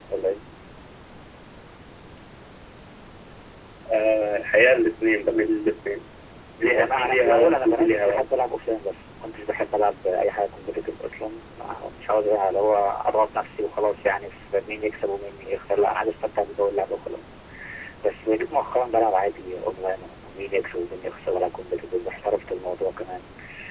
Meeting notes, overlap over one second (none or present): present